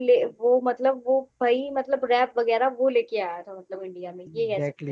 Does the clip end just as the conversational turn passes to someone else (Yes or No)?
Yes